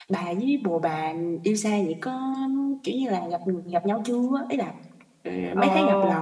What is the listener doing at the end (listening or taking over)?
taking over